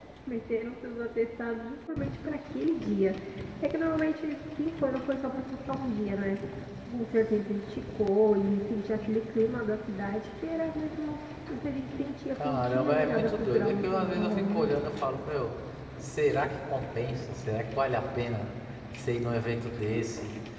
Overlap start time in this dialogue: 12.3 s

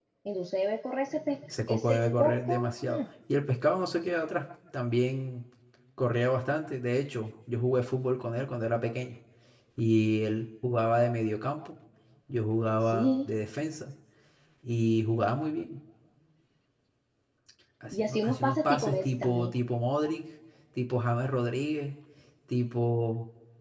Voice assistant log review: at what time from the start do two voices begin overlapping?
1.5 s

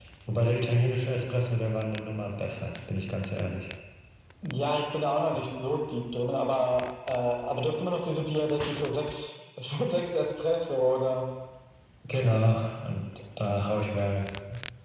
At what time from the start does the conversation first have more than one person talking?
none

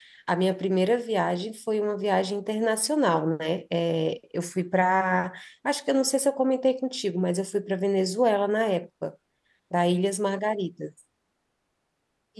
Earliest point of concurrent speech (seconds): none

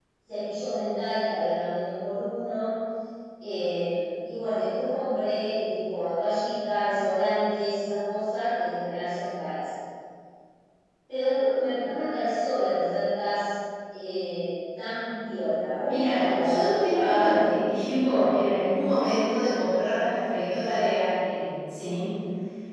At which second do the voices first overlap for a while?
15.8 s

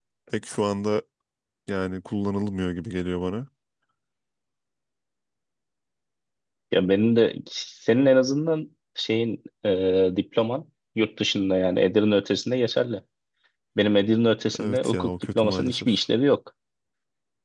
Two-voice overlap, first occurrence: 14.6 s

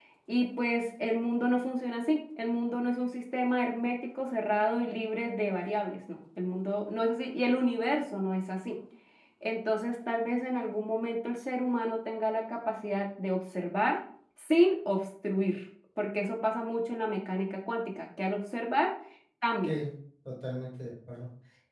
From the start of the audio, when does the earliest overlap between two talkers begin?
none

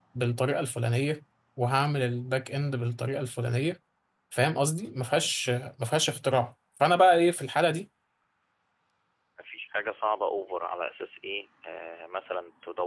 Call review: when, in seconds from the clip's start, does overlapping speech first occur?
none

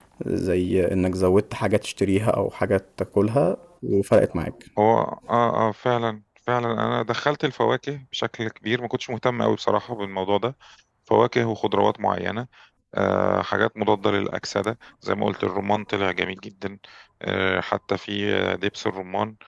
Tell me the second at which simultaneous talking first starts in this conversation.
none

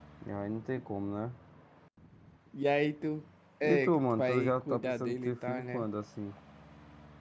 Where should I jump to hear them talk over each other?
3.6 s

